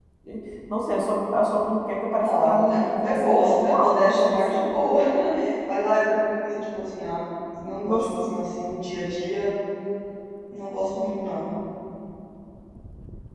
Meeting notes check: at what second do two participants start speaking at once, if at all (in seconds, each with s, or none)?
2.2 s